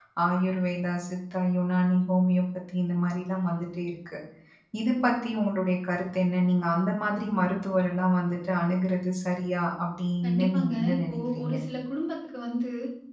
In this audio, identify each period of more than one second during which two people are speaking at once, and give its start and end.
10.2-11.5

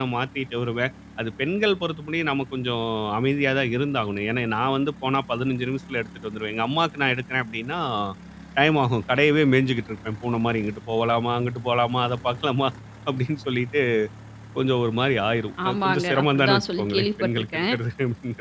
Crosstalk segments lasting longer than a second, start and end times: 15.7-17.8

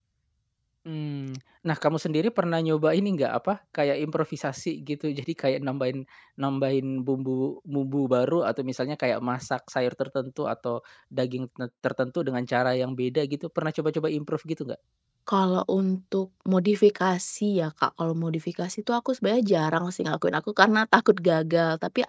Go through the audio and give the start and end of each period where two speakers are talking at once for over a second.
none

